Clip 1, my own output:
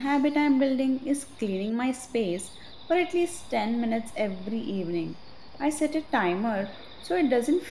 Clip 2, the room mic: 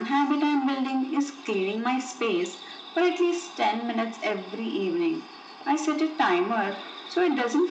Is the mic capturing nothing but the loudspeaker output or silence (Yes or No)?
Yes